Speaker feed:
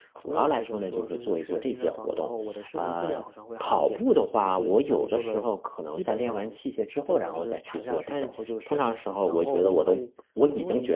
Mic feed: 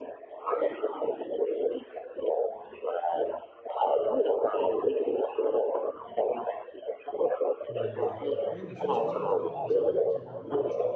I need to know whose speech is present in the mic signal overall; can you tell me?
both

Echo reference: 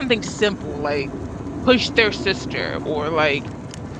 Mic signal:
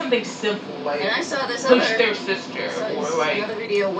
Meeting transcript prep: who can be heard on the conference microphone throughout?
both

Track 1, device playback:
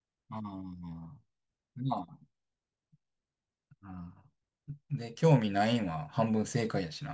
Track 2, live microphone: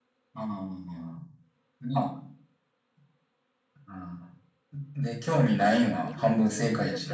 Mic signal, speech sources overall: both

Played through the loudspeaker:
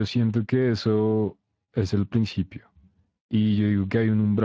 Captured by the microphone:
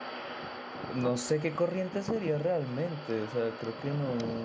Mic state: user only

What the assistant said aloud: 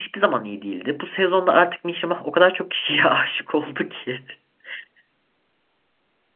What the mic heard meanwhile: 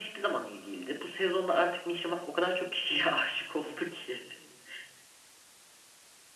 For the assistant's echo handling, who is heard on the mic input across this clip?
echo only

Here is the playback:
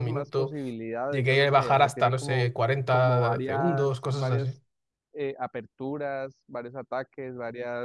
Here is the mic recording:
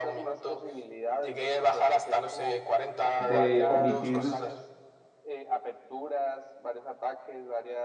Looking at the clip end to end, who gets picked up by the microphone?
both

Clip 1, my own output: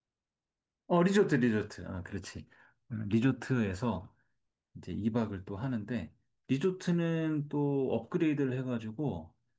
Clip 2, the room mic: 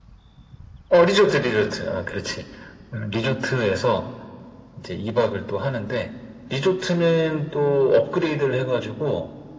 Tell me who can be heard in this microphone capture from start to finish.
echo only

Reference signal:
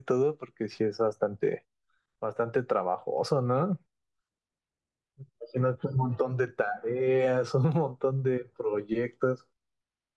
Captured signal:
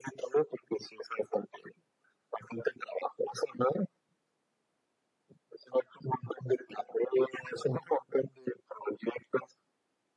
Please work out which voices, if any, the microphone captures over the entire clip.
echo only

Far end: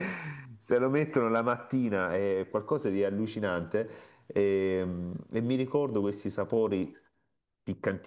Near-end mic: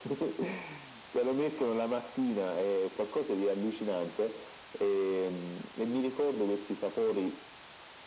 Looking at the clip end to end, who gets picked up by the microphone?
echo only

